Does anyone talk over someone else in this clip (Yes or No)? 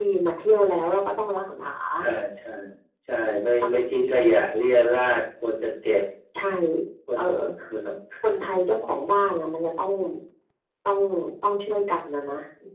No